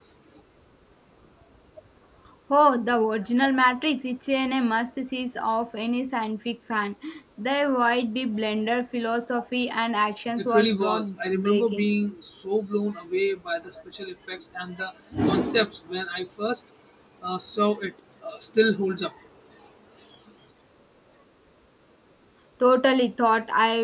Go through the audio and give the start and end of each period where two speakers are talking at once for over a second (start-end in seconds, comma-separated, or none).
10.4-11.9